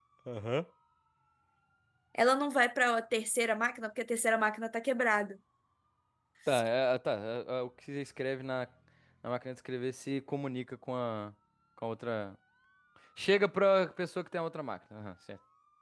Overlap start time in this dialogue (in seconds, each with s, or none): none